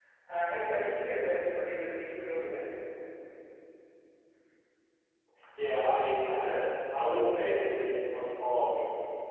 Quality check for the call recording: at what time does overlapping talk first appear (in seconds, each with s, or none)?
none